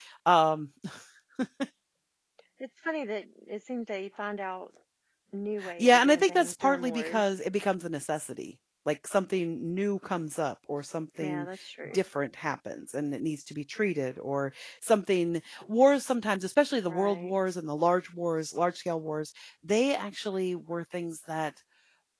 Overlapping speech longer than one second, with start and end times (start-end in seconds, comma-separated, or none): 5.8-7.3